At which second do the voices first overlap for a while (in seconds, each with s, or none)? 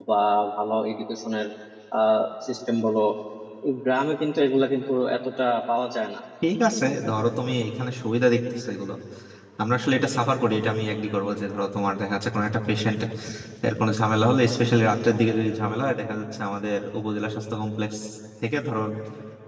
none